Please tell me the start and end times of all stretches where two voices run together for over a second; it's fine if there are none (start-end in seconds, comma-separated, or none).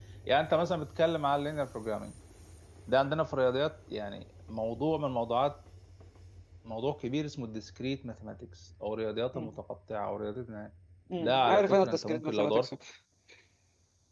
11.2-12.7